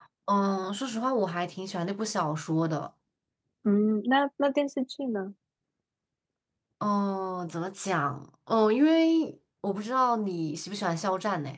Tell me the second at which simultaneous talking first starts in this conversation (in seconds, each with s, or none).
none